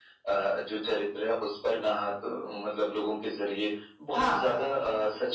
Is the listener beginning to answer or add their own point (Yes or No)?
No